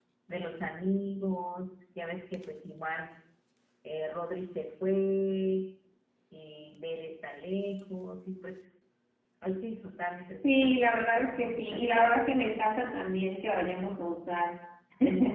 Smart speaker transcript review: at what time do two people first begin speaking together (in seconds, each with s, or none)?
10.4 s